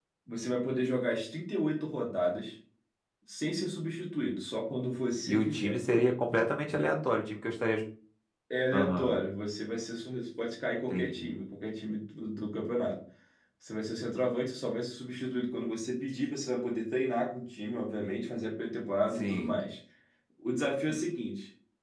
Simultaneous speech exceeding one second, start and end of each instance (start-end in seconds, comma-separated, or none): none